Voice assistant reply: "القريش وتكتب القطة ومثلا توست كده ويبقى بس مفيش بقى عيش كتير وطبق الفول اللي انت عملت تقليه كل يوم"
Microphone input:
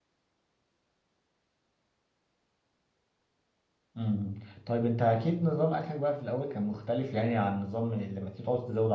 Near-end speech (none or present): present